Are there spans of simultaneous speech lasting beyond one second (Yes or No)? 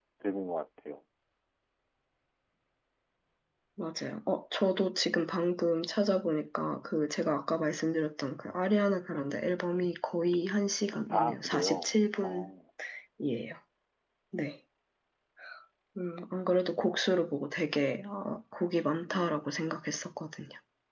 Yes